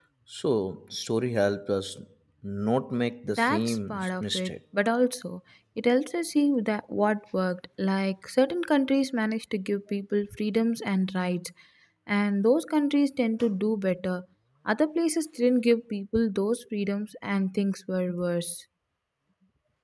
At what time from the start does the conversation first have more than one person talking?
3.3 s

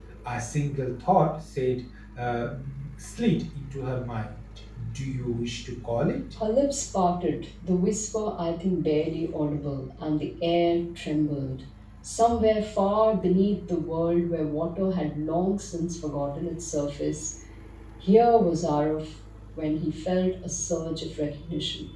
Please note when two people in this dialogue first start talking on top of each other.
none

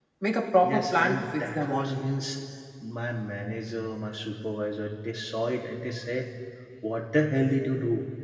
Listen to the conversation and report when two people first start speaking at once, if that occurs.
0.6 s

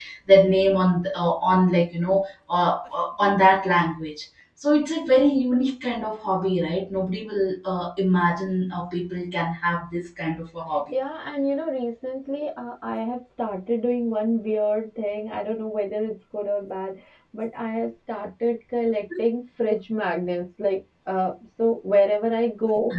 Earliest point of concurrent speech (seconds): none

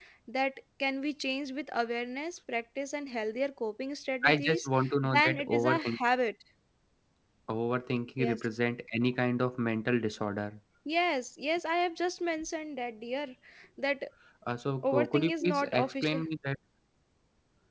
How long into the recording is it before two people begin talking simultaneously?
4.2 s

